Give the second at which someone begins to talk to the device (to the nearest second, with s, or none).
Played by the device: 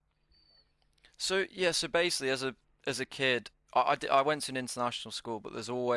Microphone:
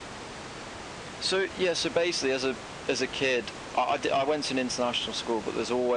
none